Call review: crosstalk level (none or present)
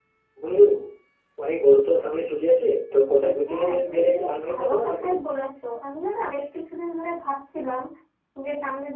present